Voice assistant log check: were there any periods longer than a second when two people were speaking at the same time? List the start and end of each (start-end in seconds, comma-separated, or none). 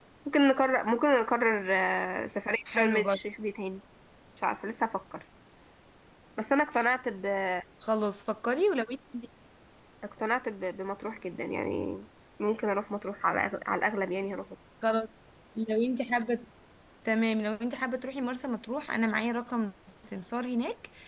none